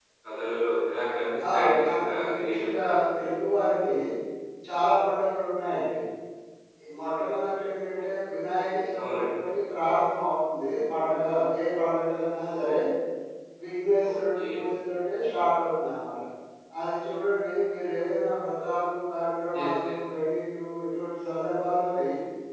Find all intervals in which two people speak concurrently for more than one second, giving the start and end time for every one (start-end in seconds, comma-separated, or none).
1.5-3.0